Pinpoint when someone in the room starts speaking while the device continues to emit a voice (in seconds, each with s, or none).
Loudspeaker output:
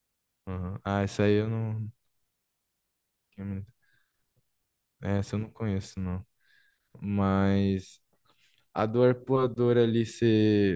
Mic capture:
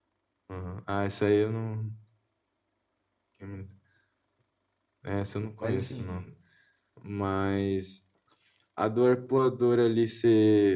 5.6 s